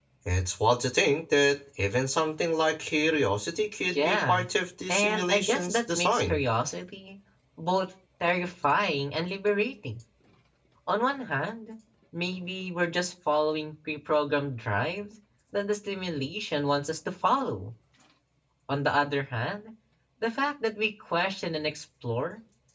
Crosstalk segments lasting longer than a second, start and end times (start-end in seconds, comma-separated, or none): 4.9-6.4